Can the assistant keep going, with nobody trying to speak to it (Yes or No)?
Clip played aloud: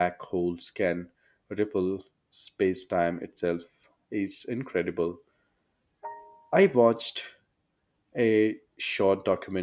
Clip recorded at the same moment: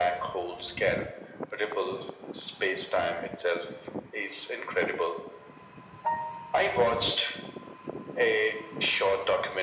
Yes